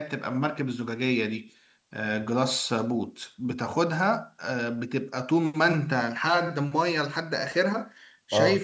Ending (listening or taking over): listening